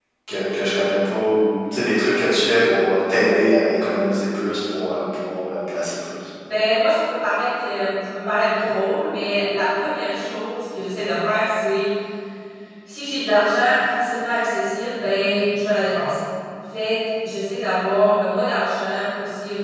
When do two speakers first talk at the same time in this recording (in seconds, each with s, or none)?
none